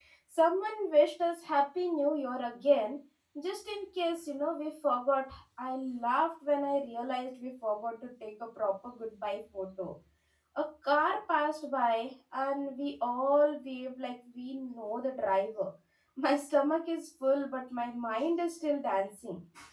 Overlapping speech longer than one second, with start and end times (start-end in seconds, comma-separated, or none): none